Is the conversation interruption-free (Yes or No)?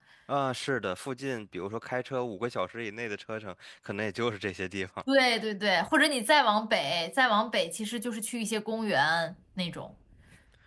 Yes